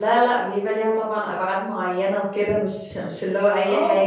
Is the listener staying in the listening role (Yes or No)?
No